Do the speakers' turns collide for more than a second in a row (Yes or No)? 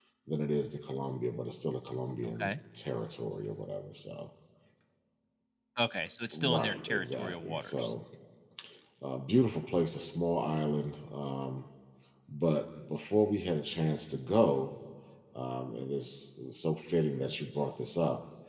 Yes